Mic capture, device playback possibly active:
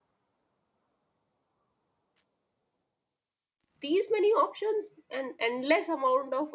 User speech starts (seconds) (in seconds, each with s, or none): 3.8 s